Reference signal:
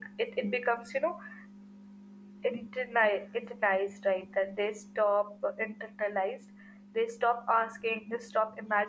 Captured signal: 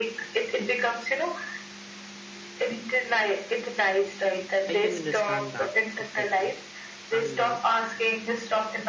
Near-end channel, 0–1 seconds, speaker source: echo only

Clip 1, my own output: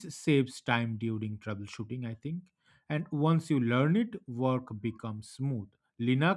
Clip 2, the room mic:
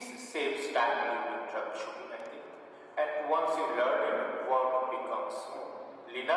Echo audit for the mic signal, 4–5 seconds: echo only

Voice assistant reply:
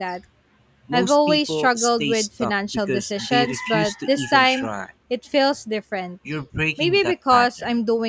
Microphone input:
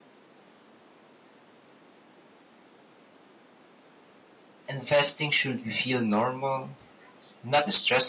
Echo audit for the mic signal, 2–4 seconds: neither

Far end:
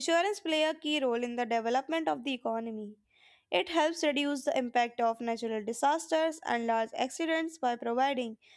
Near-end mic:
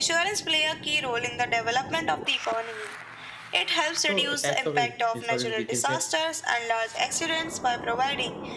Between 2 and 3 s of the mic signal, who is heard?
echo only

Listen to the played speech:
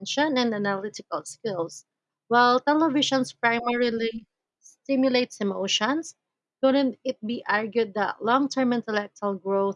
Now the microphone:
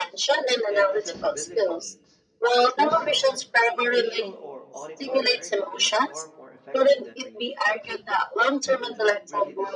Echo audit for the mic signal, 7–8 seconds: both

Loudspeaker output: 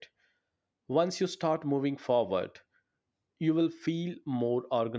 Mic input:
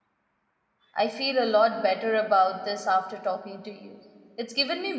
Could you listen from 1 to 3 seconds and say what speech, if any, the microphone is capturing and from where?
user only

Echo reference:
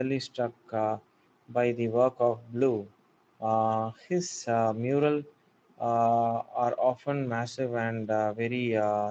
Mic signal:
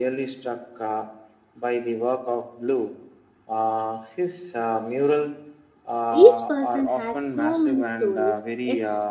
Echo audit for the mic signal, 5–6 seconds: echo only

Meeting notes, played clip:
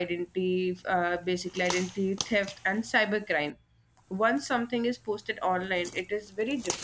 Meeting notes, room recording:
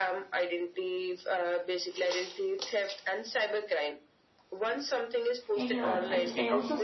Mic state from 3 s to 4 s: echo only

